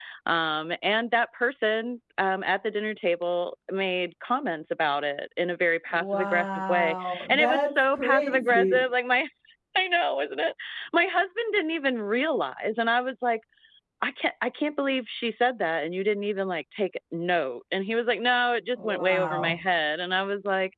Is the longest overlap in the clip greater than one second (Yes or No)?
Yes